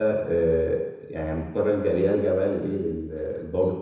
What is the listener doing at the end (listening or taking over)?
listening